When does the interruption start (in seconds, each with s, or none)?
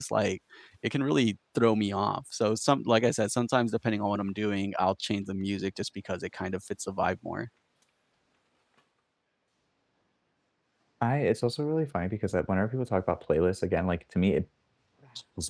none